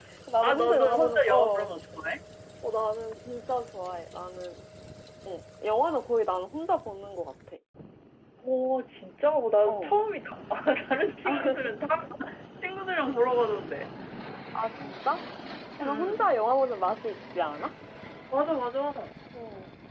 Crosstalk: present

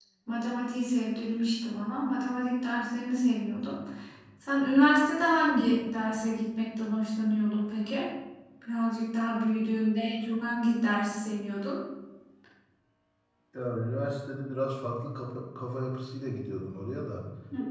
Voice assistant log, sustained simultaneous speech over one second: none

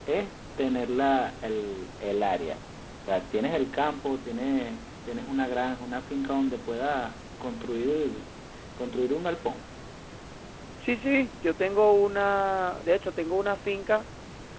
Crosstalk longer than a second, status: none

